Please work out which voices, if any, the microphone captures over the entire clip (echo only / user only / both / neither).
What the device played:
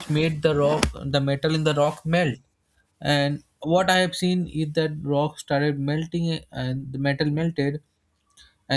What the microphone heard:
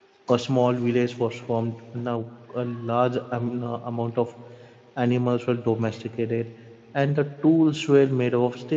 user only